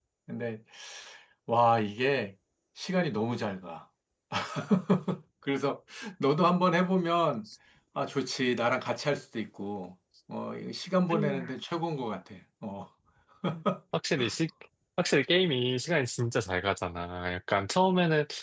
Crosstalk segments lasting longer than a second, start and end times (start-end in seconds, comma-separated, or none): none